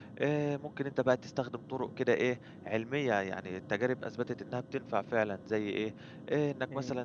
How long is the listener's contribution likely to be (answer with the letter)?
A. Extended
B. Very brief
B